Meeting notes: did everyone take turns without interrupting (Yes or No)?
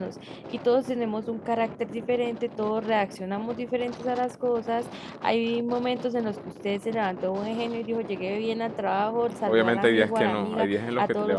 No